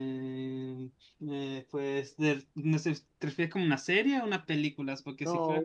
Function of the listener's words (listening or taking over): taking over